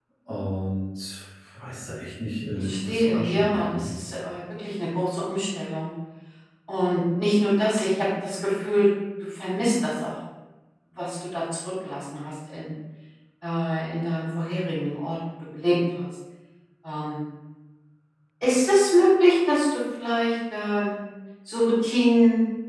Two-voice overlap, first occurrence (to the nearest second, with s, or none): 3 s